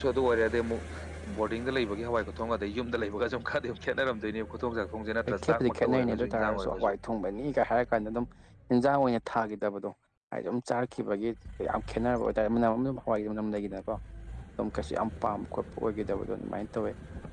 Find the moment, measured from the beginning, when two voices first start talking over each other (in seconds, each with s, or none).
5.3 s